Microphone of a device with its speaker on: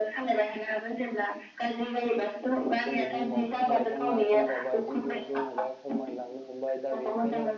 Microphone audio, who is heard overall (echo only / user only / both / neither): both